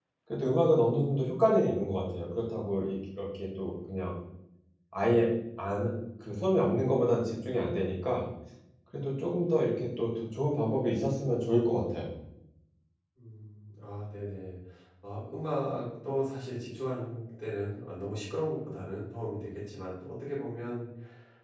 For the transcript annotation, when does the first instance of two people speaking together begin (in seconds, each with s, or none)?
none